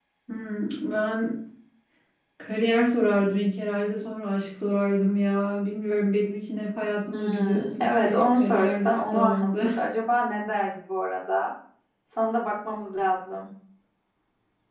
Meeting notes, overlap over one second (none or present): present